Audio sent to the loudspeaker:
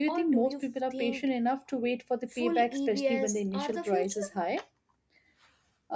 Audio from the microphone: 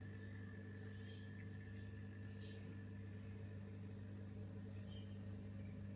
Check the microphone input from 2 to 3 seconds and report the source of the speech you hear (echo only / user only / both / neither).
neither